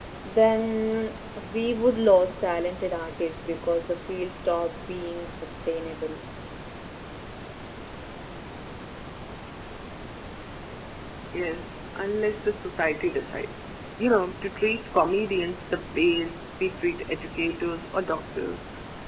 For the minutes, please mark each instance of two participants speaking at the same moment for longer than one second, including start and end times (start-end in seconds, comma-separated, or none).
none